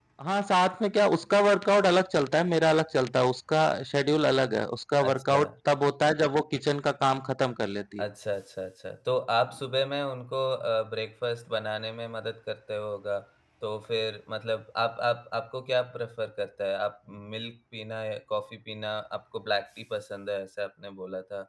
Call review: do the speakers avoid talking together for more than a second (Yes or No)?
Yes